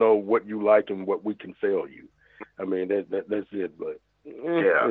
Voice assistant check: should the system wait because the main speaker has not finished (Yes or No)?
No